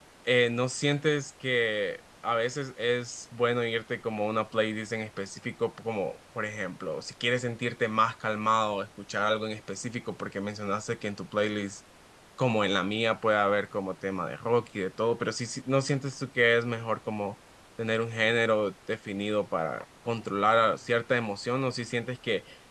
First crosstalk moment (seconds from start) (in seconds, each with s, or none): none